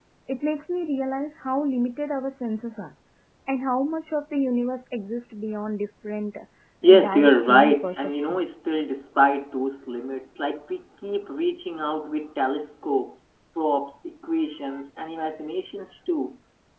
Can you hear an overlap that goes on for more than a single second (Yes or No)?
Yes